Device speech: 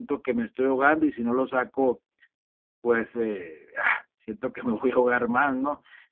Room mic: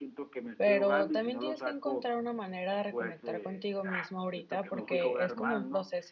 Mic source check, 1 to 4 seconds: both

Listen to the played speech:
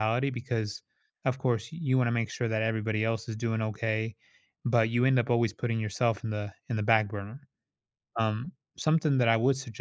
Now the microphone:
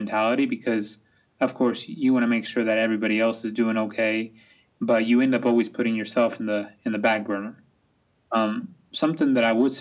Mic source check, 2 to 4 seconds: echo only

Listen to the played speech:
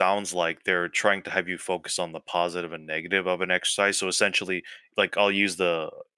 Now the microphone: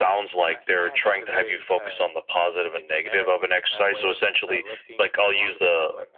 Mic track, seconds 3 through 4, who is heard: both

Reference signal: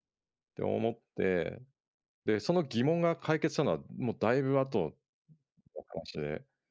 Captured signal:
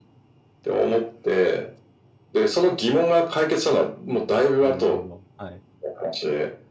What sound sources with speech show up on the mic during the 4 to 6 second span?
both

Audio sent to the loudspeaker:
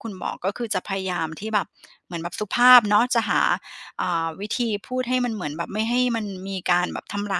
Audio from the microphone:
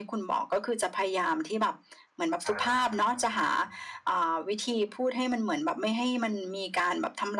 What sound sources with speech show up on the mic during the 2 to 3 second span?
both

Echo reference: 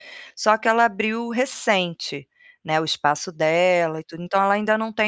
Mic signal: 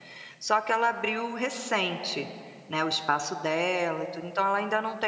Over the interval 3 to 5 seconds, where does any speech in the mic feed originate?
echo only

